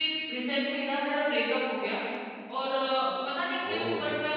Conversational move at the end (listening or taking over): listening